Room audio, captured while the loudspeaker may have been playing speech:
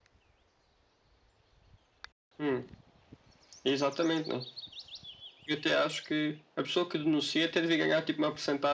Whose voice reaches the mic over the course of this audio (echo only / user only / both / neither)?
echo only